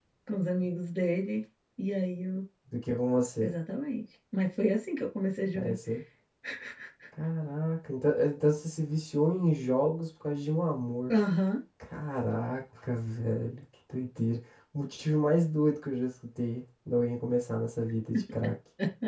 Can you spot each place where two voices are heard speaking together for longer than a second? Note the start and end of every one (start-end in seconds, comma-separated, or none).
none